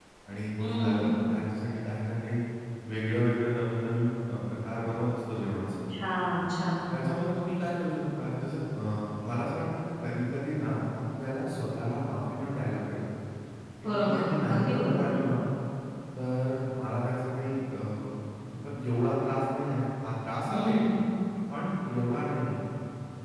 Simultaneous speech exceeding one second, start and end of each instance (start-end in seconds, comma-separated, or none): 13.9-15.1